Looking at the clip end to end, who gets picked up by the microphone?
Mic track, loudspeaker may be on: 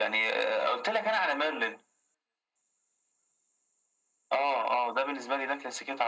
echo only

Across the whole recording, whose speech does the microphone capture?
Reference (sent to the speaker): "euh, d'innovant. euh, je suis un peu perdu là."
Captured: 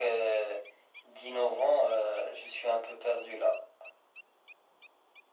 echo only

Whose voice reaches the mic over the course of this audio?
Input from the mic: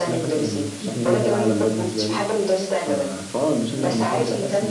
both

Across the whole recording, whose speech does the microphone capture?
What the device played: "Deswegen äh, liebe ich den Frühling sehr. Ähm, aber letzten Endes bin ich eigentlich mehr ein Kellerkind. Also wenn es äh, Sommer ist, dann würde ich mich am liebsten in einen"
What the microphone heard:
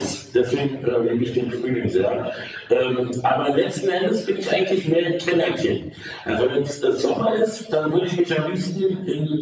echo only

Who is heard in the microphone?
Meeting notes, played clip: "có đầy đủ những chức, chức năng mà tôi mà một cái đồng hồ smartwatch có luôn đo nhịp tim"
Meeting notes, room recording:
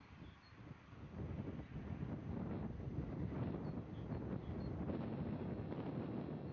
neither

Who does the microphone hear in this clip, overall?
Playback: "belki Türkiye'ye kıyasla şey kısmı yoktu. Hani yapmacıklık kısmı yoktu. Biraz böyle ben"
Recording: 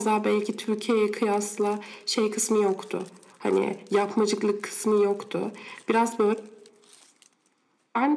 echo only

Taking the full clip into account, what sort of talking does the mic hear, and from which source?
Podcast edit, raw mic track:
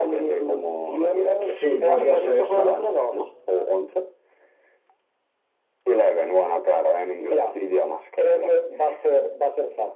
both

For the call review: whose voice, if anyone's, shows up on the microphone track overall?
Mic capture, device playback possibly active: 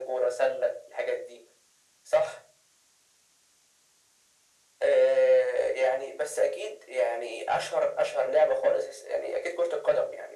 echo only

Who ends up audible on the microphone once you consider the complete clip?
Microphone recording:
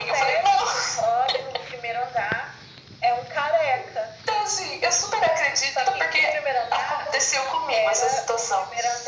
echo only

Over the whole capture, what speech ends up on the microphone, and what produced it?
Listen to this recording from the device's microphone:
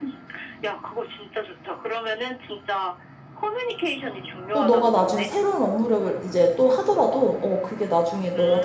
both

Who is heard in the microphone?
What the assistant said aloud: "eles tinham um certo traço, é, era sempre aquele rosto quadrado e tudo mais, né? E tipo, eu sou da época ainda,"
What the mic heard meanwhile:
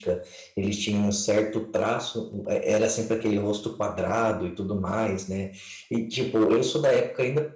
echo only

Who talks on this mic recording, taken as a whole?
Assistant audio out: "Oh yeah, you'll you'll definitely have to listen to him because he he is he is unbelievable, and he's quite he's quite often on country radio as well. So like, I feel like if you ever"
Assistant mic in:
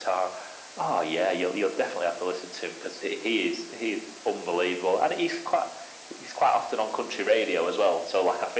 echo only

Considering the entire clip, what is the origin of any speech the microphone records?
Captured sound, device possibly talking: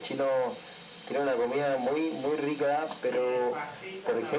both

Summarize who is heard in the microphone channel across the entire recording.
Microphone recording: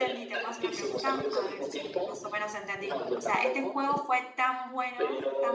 both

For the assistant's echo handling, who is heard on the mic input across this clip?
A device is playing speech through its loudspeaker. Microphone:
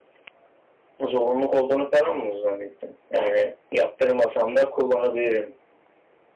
echo only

